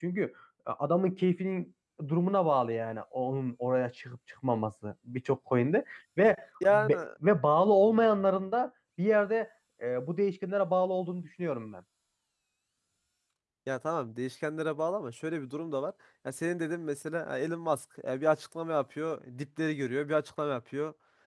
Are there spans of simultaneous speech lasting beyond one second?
No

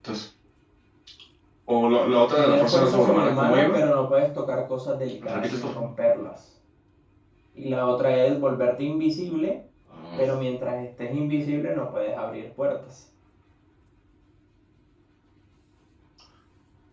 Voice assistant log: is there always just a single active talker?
No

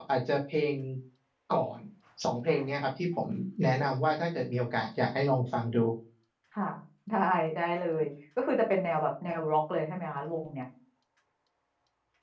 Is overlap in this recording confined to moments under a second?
Yes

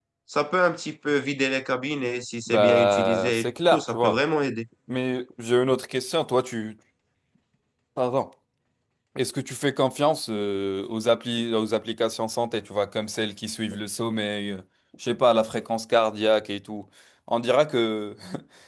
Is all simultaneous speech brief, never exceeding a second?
No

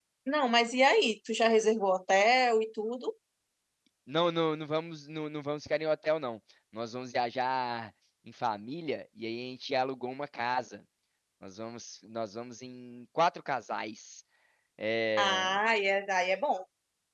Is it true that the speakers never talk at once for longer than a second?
Yes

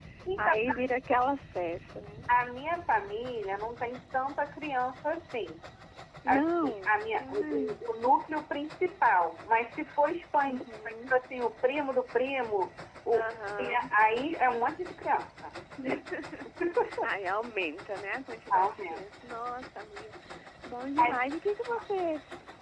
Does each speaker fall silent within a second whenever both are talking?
No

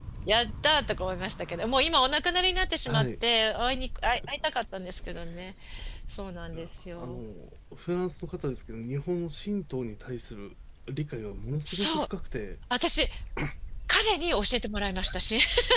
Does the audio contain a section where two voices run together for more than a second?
No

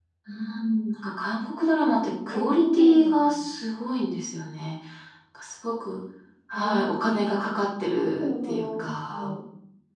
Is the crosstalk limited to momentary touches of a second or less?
No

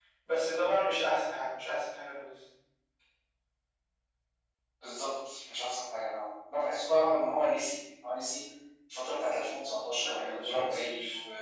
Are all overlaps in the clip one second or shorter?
No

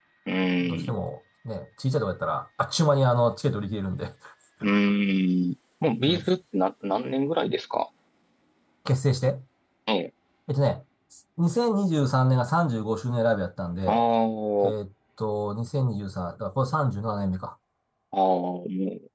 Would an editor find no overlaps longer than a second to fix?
Yes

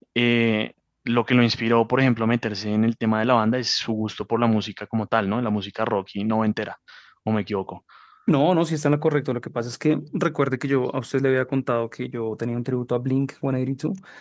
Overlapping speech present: No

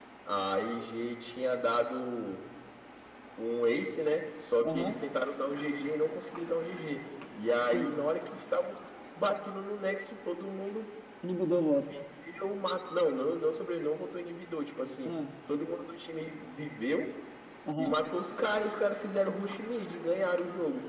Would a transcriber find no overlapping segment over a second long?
Yes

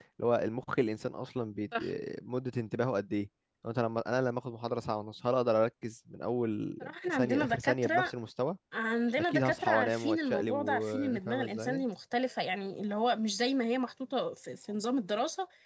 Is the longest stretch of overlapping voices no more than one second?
No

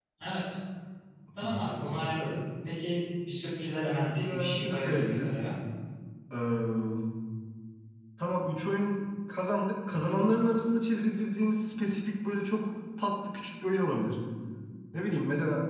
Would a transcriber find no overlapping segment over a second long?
No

